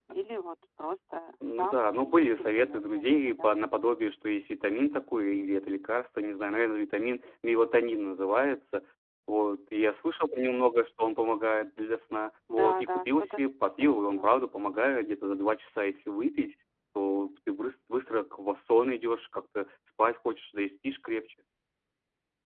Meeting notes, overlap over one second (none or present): present